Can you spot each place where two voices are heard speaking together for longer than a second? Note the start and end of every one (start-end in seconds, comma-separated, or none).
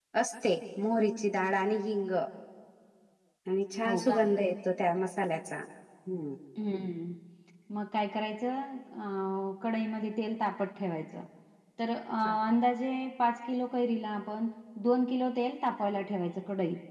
none